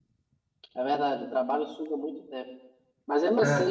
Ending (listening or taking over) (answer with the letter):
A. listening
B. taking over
A